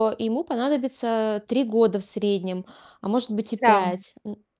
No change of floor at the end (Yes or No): Yes